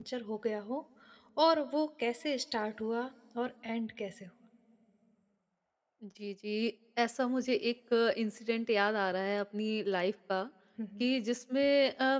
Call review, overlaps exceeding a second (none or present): none